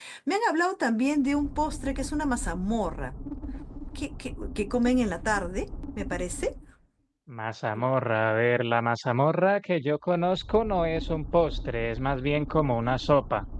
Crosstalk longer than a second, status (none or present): none